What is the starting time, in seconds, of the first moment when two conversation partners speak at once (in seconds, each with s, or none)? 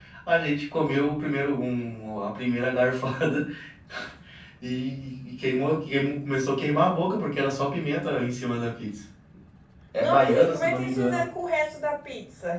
10.0 s